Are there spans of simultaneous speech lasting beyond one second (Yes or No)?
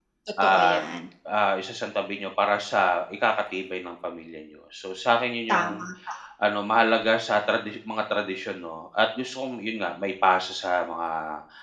No